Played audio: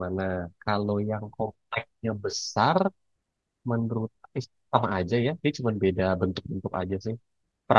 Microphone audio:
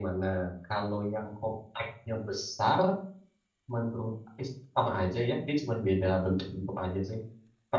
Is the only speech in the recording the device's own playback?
Yes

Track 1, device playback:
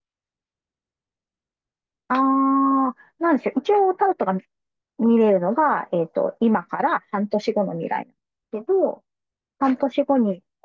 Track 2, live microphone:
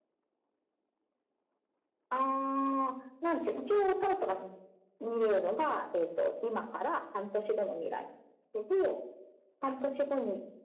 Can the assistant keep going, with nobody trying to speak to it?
Yes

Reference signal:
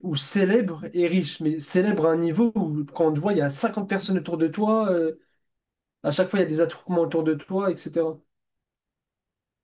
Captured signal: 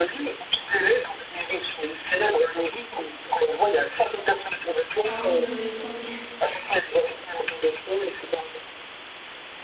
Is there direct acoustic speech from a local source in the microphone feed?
Yes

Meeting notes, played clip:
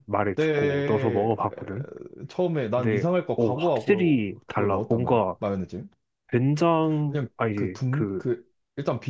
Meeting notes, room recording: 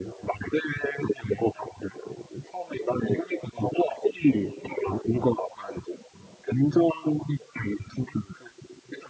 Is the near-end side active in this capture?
No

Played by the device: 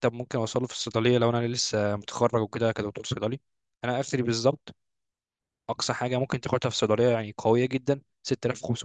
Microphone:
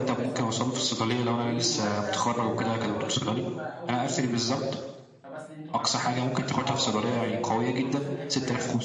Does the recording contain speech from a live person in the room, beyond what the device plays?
Yes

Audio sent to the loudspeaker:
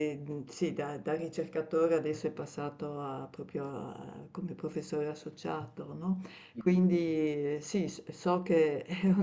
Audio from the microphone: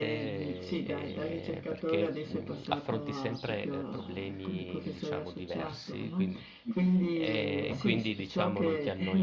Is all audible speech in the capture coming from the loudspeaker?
No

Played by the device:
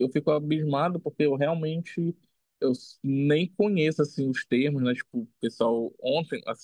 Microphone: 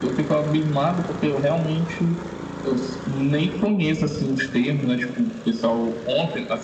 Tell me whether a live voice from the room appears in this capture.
No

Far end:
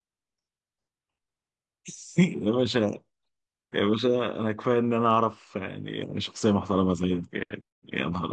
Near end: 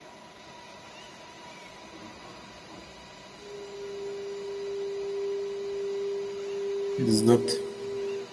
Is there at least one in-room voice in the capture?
Yes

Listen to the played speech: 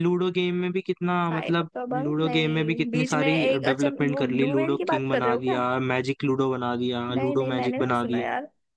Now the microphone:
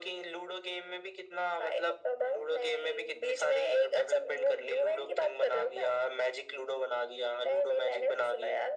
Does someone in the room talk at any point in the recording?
No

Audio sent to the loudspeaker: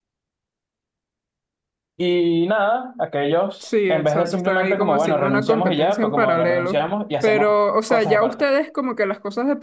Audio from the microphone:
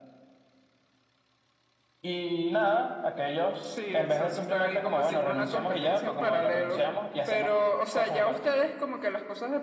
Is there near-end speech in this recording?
No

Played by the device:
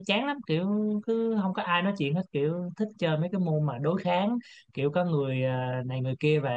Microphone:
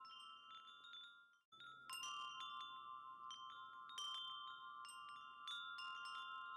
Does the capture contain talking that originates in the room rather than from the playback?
No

